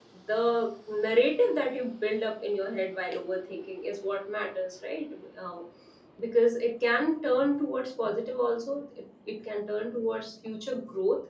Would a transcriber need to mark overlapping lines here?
No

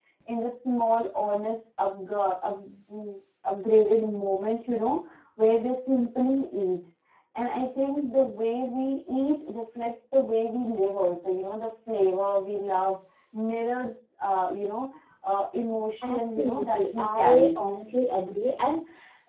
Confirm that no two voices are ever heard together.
No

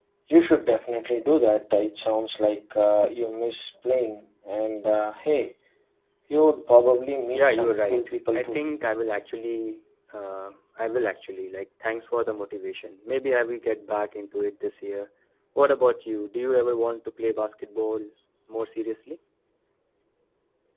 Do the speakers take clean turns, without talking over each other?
No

